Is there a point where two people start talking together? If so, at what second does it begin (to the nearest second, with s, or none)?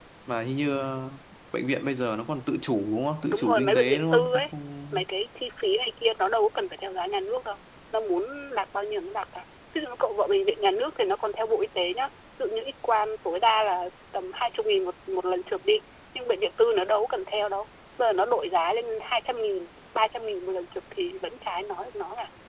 3 s